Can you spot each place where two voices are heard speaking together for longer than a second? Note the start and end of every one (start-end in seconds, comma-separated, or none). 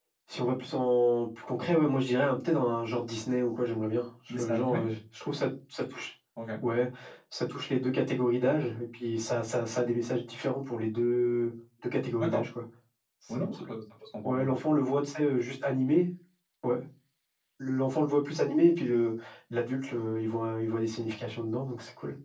none